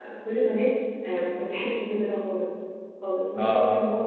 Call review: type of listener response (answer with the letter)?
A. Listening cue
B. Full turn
A